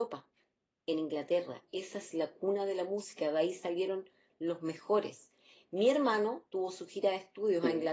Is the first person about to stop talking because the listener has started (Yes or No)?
No